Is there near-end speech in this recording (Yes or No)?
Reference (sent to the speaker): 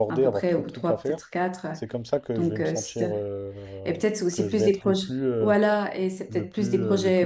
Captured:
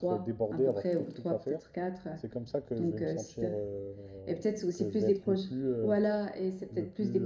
No